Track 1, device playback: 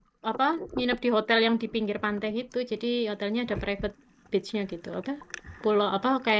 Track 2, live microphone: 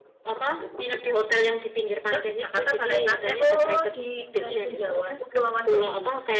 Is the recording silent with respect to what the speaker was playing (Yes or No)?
No